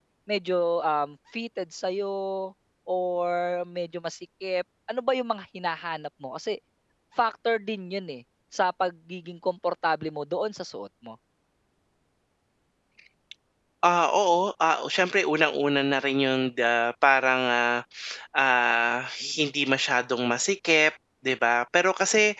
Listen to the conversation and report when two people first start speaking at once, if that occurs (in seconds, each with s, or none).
none